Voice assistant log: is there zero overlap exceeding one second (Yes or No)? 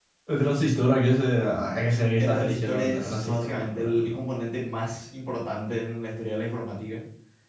No